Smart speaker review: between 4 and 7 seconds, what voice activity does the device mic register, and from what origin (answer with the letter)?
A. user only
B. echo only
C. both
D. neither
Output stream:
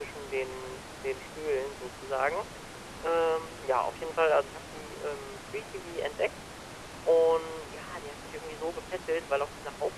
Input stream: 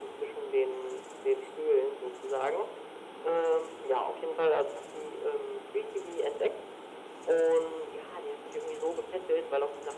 B